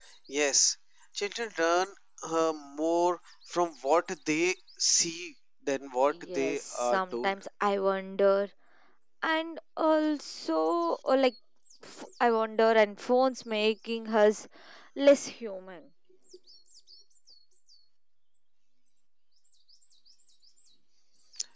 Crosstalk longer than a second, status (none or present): present